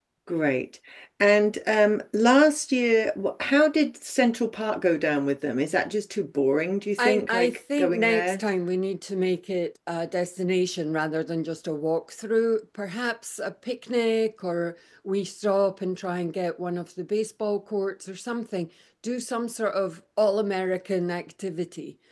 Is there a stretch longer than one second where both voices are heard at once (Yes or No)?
Yes